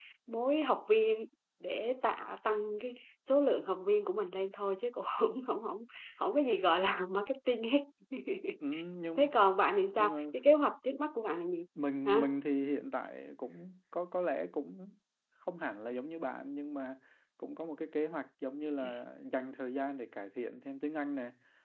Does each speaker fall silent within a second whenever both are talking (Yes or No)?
Yes